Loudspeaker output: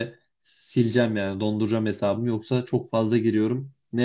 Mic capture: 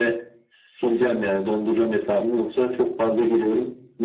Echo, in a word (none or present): present